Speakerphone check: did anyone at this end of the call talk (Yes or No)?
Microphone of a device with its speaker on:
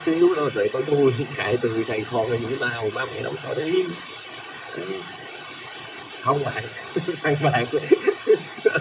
No